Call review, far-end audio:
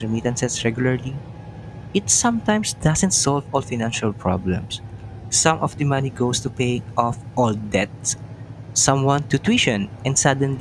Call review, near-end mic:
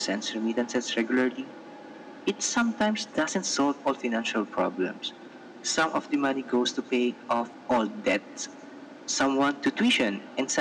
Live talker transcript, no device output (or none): none